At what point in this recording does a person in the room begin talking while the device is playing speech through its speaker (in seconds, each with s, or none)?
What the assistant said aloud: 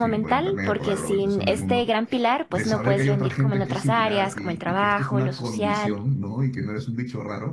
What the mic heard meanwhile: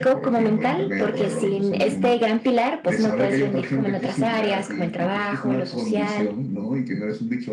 none